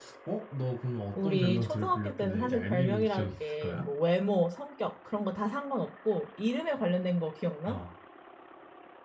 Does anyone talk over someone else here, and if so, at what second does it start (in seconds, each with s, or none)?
1.2 s